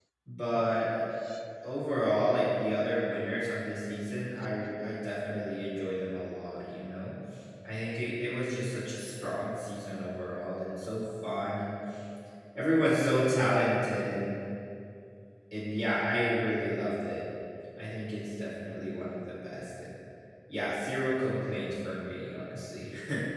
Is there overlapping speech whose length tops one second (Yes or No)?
No